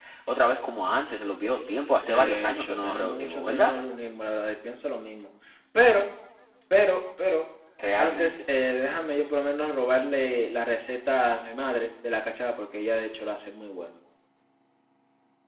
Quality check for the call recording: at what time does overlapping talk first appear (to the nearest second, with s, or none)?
2 s